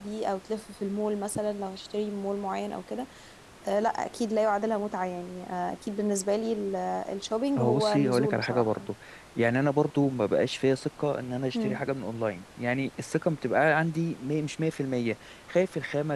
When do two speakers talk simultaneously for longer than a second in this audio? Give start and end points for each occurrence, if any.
7.6-8.8

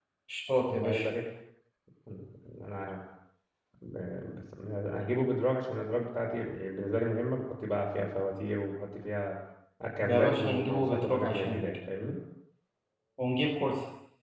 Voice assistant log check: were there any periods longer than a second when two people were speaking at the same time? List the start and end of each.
10.0-11.7

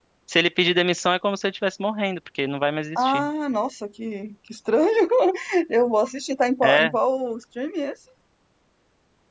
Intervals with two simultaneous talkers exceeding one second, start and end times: none

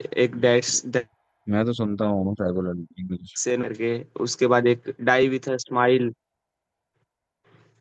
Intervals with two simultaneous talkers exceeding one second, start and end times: none

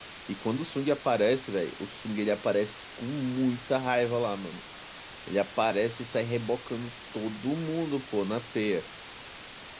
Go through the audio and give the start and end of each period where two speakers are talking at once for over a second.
none

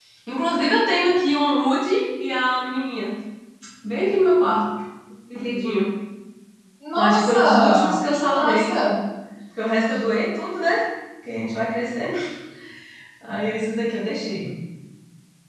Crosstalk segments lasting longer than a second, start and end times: 7.0-8.7

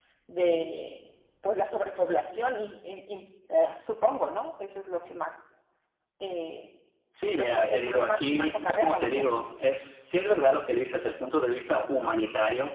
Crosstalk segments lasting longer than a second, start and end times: 7.3-9.2

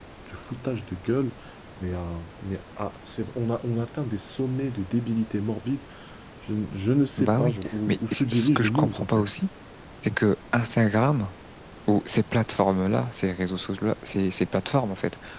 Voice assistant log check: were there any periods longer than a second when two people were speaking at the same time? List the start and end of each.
7.2-9.3

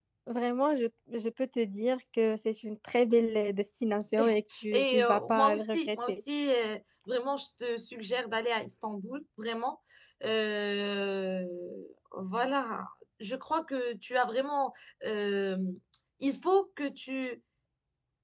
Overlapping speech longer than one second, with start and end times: 4.7-6.2

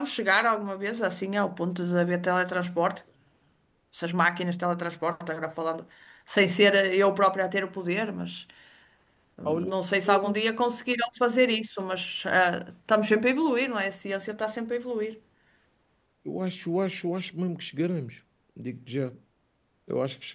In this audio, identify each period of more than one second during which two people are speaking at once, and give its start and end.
none

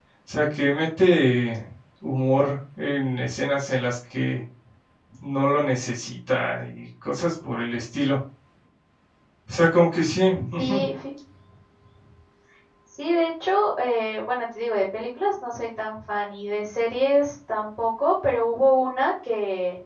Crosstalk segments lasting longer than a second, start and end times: none

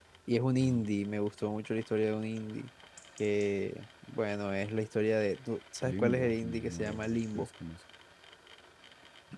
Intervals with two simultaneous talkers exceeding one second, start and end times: 5.8-7.5

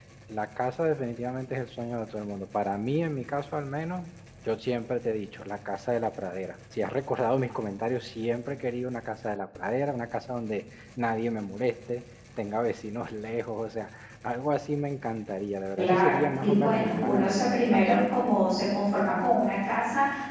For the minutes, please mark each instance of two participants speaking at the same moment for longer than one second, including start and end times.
15.8-17.9

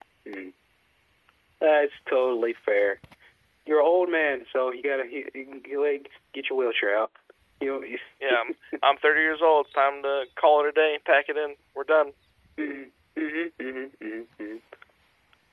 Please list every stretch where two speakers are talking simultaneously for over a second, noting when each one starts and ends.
none

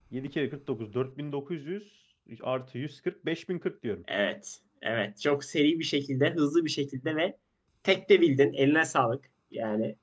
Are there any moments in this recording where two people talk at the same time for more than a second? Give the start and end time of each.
none

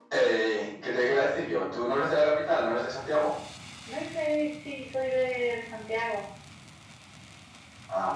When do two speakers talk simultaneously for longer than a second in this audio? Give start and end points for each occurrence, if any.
none

